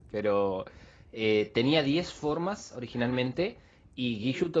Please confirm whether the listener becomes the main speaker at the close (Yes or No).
No